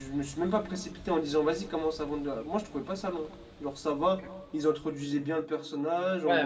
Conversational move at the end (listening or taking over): taking over